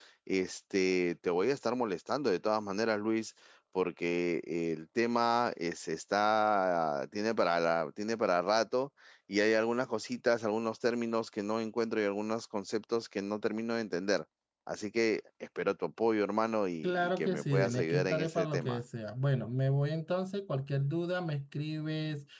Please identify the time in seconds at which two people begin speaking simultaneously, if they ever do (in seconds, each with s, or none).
16.8 s